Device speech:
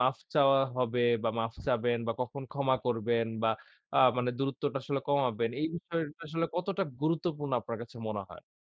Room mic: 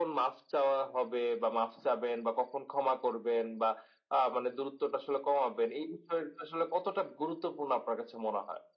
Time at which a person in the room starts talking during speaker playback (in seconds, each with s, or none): none